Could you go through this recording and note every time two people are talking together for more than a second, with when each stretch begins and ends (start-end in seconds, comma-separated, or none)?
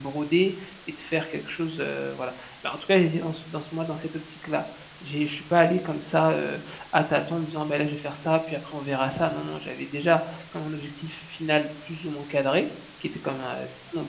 none